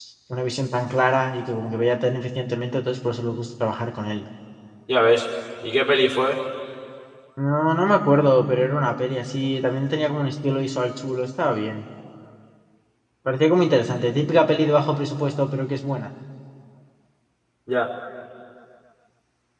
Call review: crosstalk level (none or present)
none